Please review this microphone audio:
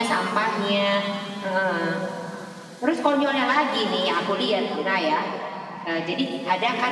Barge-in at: none

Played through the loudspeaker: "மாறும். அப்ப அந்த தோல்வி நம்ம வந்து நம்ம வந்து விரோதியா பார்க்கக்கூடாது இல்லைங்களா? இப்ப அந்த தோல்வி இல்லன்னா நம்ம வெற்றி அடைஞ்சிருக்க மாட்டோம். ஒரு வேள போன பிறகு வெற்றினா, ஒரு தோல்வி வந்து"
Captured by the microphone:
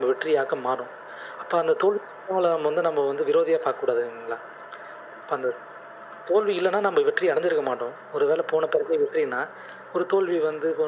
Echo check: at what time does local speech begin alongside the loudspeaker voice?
none

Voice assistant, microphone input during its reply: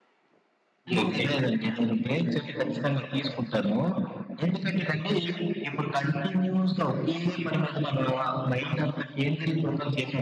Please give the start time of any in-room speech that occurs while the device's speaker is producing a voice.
0.9 s

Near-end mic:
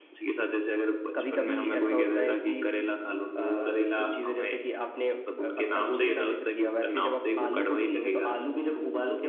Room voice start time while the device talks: none

